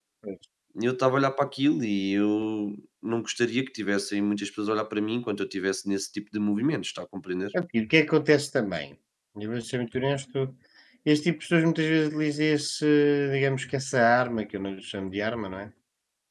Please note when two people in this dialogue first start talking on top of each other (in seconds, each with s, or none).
none